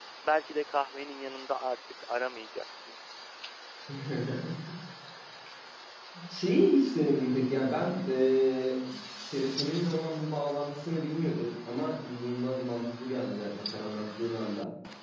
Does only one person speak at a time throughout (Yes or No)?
Yes